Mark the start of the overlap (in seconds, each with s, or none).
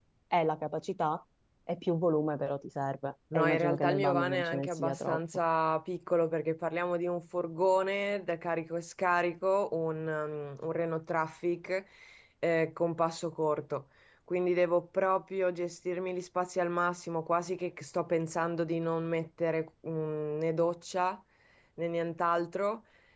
3.3 s